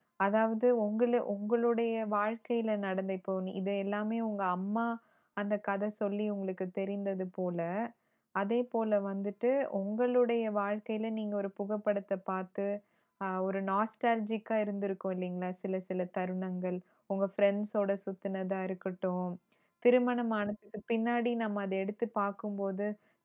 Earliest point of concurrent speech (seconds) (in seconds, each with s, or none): none